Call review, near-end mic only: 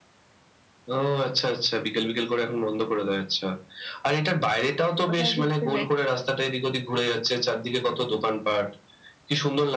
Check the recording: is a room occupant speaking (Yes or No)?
Yes